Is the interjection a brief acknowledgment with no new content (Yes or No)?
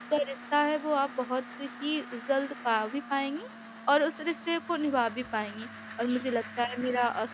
Yes